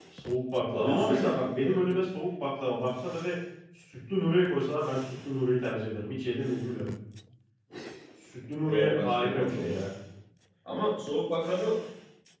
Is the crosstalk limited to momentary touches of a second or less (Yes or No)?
No